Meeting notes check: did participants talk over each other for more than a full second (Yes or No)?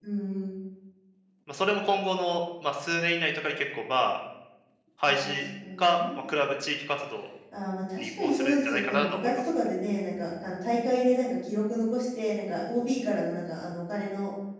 Yes